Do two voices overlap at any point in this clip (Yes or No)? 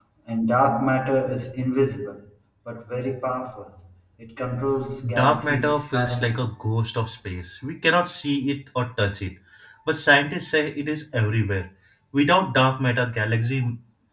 Yes